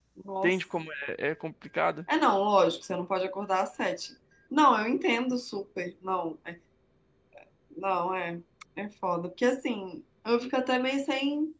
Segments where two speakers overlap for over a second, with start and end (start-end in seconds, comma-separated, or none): none